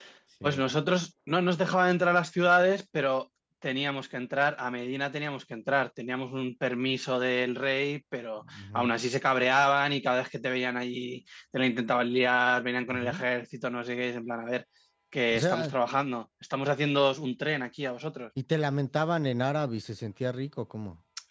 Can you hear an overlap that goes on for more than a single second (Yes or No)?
No